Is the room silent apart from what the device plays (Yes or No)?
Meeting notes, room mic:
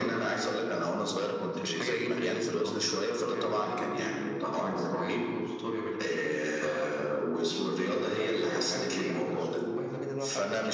Yes